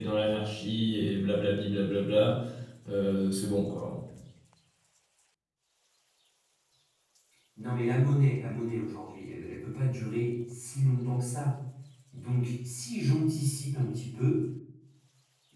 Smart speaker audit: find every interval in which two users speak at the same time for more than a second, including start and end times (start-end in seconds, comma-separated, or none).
none